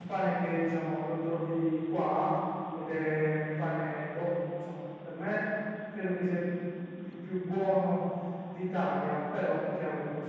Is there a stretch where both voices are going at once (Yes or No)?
No